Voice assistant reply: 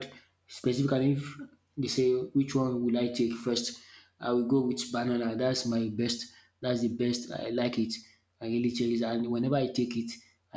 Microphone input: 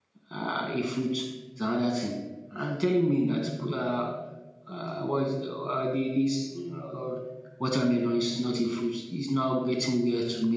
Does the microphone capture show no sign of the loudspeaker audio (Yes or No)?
Yes